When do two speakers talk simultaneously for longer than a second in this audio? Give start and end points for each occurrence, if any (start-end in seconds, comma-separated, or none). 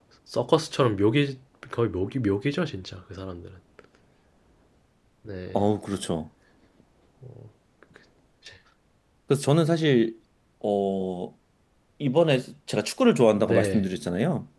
none